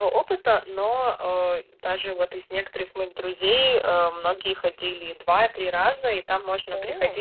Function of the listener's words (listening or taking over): listening